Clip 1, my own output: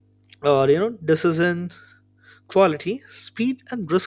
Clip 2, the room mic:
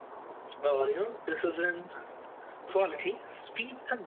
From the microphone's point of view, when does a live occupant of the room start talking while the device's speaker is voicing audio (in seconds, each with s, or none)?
none